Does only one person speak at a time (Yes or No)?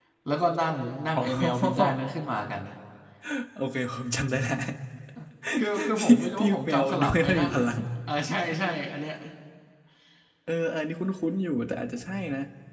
No